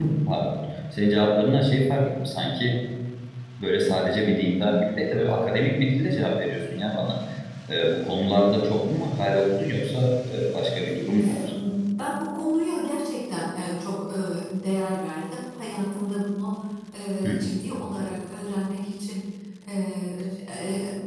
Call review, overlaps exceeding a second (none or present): none